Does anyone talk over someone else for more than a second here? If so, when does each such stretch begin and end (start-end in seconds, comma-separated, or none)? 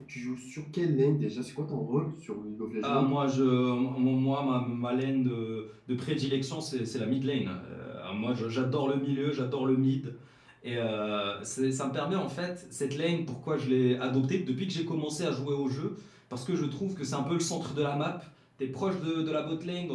none